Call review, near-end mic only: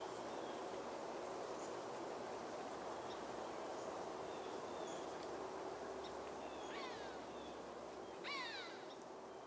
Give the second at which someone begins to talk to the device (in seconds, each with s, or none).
none